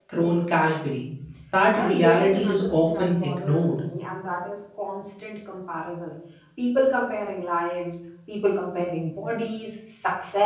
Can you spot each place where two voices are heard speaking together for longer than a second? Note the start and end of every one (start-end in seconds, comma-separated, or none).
1.7-3.7